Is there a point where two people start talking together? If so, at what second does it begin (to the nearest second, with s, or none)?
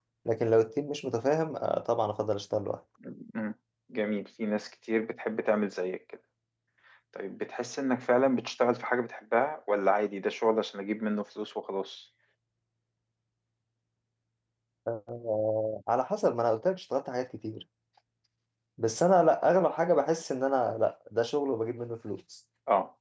none